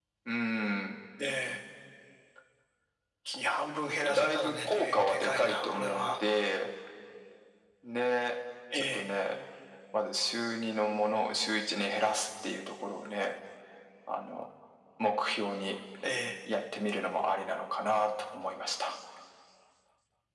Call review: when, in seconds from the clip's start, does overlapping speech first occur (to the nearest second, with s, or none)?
4 s